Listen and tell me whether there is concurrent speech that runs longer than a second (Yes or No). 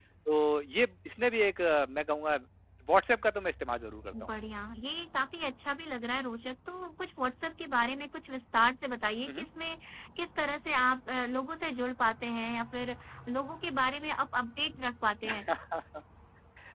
No